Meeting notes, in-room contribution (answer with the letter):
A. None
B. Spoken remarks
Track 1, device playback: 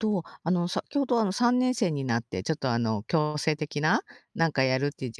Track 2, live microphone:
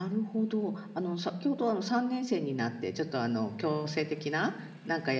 A